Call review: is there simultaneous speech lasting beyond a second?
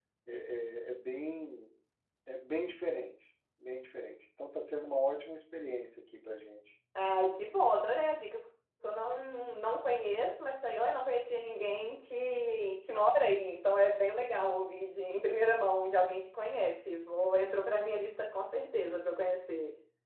No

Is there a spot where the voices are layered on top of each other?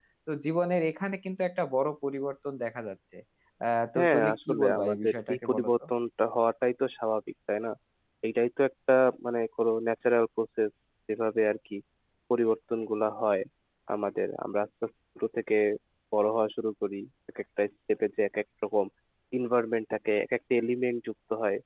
Yes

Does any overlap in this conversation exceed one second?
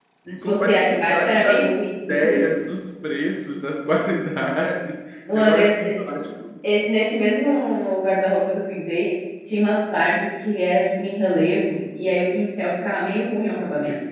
Yes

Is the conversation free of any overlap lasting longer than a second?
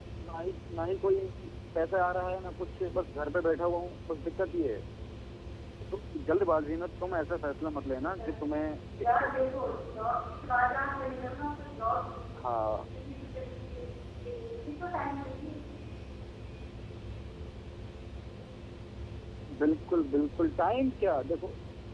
Yes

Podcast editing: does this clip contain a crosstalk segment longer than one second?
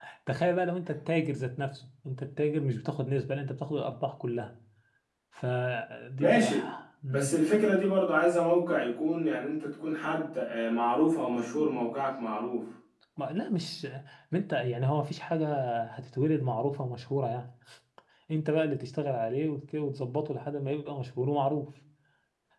No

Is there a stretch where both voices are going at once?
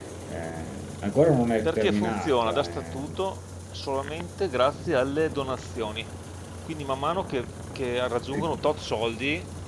Yes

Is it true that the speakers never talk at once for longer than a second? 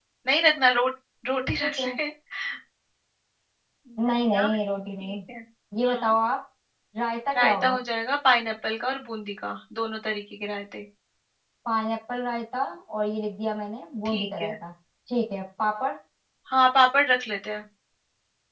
Yes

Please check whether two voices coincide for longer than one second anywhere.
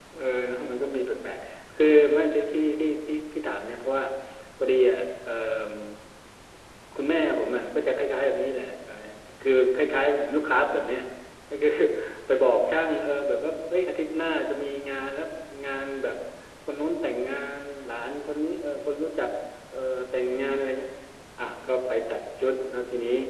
No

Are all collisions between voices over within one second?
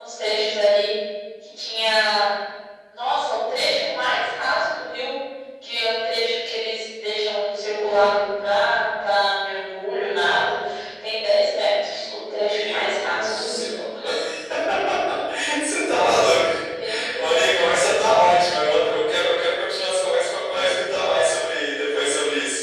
No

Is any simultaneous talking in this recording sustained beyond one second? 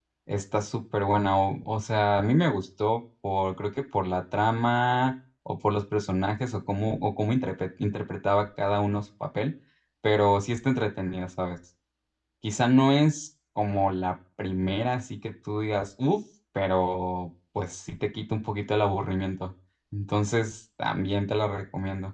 No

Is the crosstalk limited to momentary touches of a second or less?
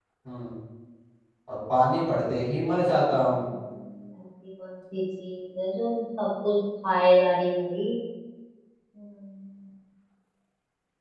Yes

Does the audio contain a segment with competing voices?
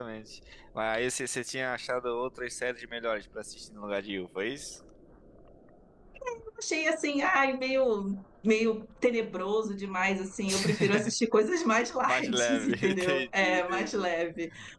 Yes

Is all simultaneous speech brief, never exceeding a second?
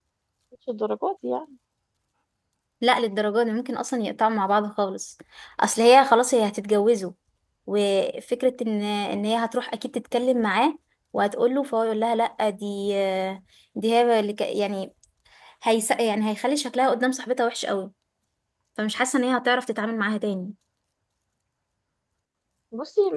Yes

